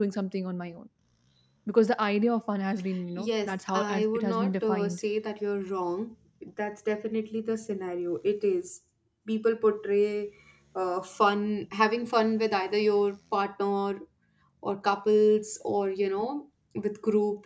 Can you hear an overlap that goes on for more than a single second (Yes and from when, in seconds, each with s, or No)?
Yes, from 3.2 s